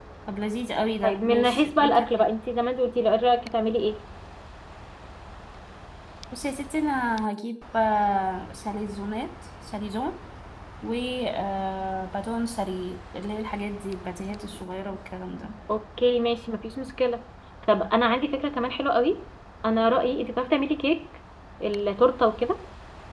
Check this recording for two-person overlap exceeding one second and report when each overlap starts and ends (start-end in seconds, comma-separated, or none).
1.0-2.2